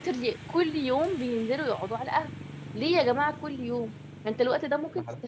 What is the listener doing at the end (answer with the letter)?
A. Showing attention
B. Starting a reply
A